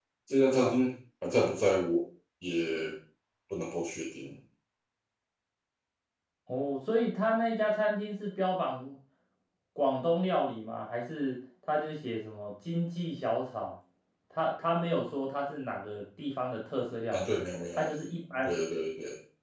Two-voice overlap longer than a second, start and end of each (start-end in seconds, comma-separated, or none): none